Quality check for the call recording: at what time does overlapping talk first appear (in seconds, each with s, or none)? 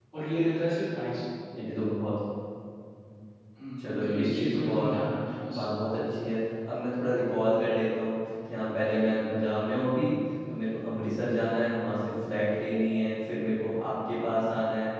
3.8 s